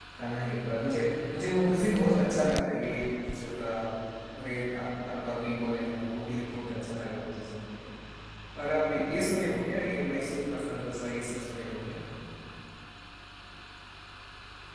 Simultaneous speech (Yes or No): No